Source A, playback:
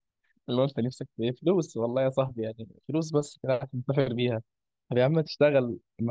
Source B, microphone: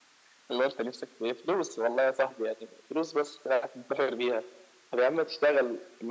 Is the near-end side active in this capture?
No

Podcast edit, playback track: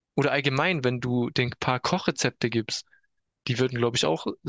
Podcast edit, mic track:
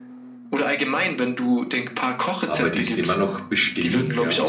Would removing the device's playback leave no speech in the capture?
No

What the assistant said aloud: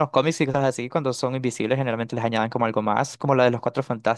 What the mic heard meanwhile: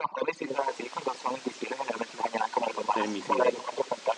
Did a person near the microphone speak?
Yes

